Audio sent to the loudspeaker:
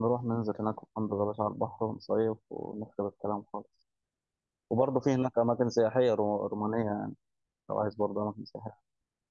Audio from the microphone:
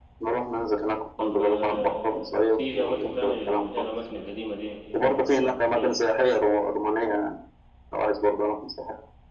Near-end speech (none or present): present